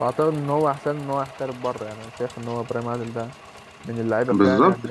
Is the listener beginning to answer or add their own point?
Yes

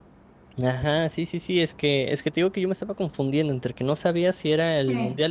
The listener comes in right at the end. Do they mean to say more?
No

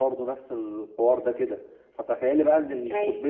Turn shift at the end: No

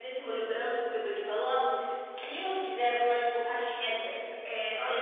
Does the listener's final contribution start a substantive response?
No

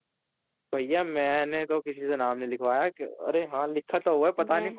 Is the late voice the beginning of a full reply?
No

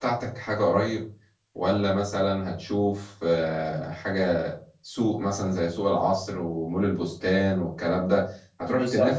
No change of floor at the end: Yes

